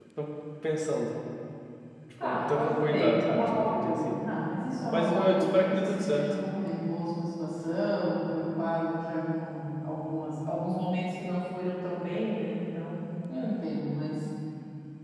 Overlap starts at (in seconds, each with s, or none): 2.2 s